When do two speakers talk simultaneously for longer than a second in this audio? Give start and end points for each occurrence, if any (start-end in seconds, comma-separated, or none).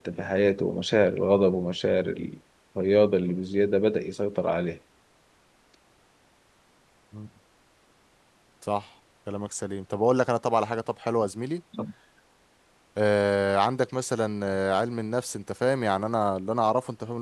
none